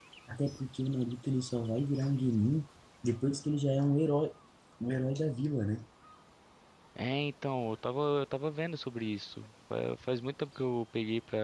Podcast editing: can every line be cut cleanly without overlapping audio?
Yes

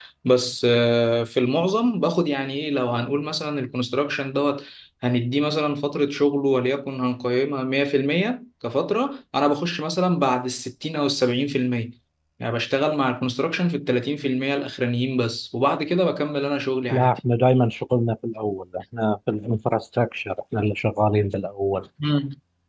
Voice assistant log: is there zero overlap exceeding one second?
Yes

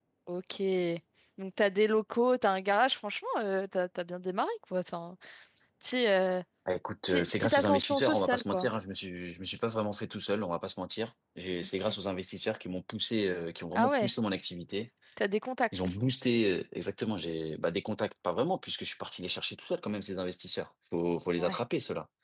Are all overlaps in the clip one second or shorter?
No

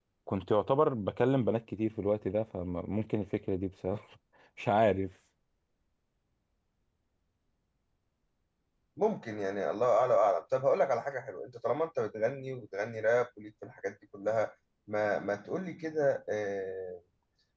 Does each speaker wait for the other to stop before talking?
Yes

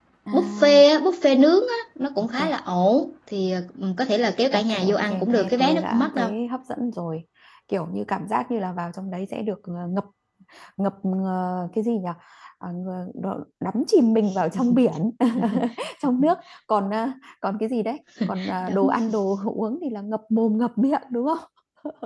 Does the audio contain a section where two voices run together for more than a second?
Yes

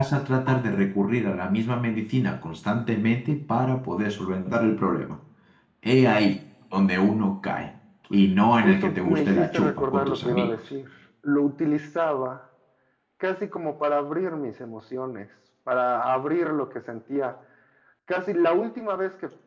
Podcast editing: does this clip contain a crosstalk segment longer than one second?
Yes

